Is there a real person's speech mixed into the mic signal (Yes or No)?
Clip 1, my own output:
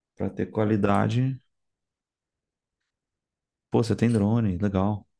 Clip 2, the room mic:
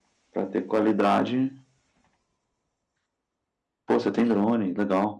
No